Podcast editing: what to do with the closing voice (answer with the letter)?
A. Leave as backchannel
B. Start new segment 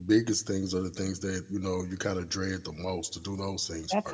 B